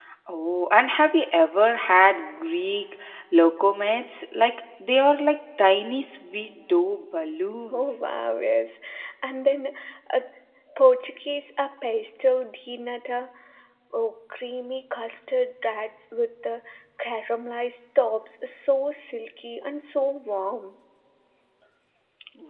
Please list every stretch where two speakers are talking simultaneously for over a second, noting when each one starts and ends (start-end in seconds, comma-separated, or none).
none